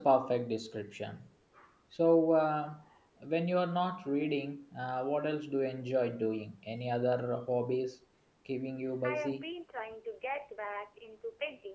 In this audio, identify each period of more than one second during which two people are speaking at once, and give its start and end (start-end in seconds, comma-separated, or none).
none